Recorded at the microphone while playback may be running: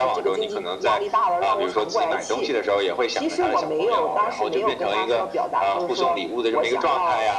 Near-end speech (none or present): none